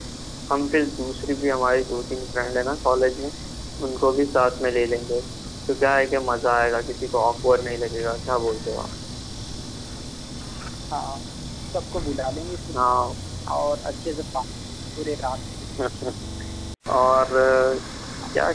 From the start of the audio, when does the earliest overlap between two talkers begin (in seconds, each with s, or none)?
none